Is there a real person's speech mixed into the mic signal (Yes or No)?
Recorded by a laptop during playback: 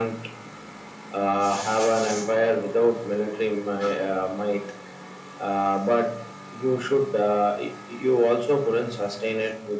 No